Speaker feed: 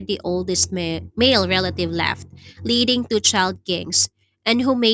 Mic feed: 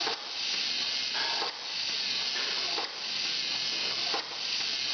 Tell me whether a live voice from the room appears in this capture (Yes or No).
No